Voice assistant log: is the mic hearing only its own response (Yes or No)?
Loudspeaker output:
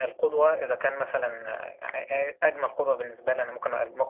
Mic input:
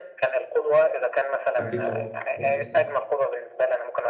No